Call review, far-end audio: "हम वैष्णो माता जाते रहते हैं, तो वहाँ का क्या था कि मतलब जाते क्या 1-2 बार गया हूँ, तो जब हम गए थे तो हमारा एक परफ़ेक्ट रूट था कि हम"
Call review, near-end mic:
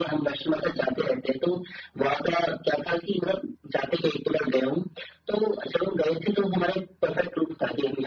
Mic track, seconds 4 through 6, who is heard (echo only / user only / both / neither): echo only